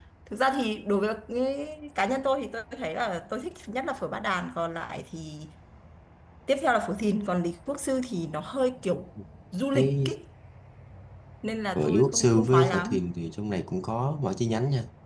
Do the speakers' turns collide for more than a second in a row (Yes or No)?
Yes